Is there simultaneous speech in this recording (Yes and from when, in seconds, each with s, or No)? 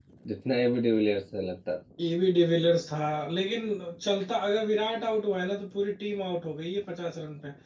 No